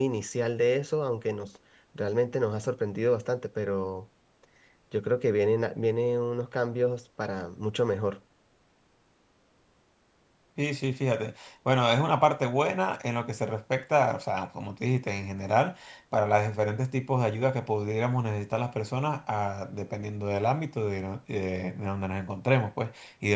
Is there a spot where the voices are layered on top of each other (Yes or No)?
No